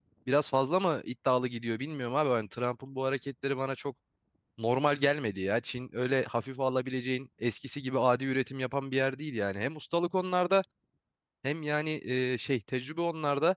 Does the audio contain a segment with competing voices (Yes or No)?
No